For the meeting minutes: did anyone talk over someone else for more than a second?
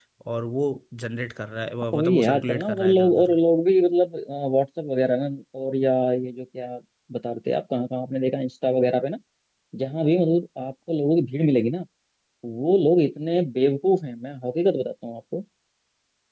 Yes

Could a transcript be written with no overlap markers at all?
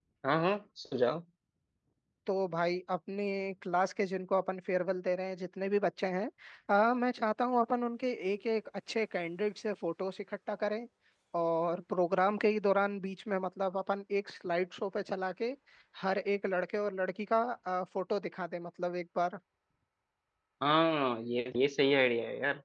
Yes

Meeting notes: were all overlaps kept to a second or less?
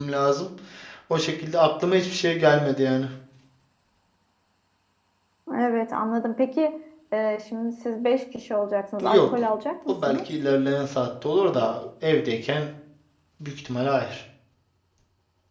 Yes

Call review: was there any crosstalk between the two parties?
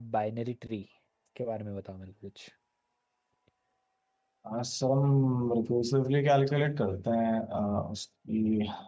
No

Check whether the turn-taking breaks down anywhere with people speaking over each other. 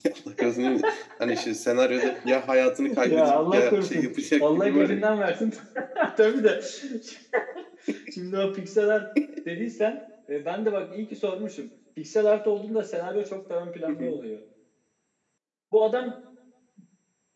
Yes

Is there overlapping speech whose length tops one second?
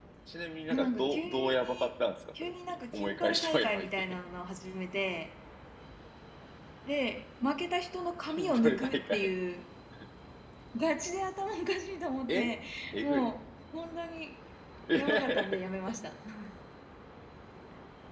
Yes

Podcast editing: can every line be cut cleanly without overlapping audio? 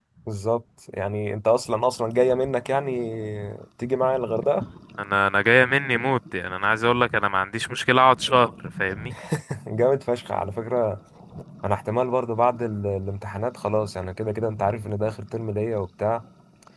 Yes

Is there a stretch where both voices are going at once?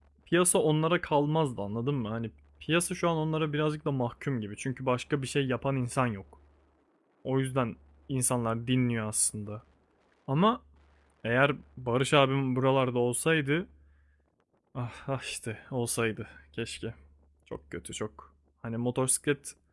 No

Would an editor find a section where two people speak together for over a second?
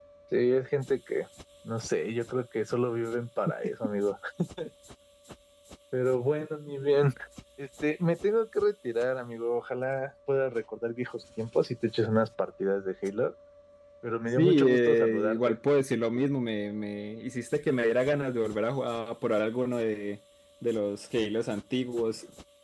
Yes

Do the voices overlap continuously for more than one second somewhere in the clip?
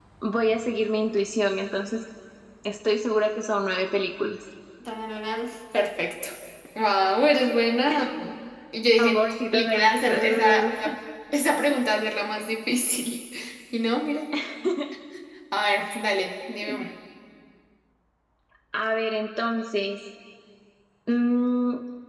Yes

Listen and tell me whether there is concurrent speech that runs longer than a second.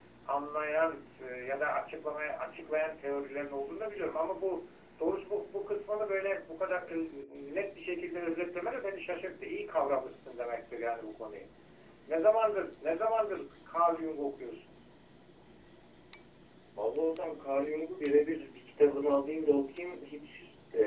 No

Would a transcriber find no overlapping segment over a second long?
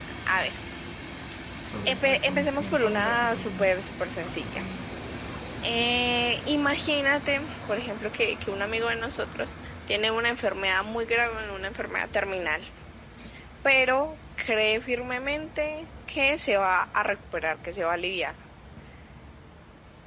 No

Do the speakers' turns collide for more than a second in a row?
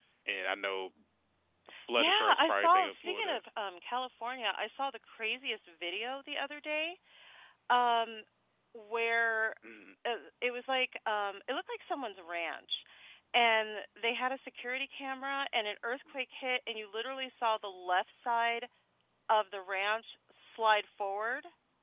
Yes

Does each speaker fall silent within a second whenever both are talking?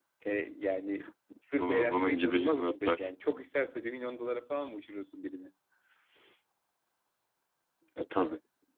No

